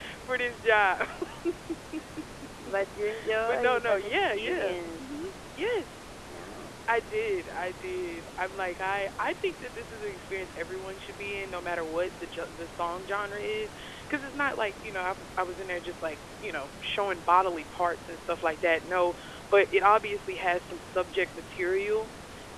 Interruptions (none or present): present